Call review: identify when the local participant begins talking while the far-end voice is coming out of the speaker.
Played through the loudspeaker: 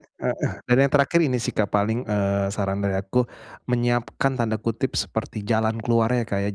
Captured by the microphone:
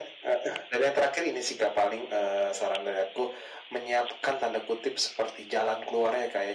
none

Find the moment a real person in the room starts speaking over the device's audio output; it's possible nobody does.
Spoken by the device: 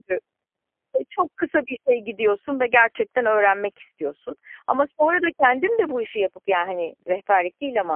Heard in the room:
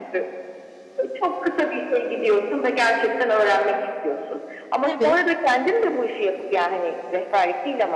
4.8 s

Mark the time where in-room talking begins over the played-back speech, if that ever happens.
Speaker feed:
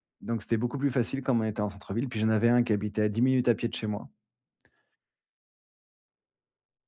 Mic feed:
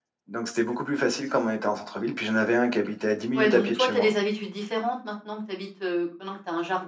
3.4 s

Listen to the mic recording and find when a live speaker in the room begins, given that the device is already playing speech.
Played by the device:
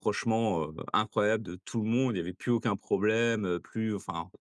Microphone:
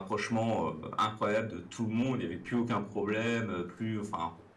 none

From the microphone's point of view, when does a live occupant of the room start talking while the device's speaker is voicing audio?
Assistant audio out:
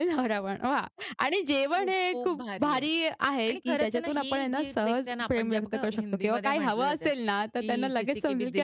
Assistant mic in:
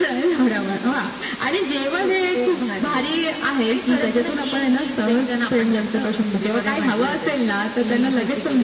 none

